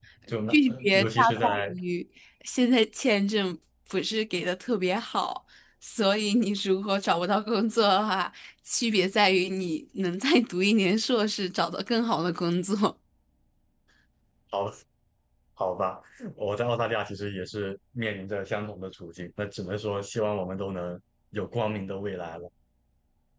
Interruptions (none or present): present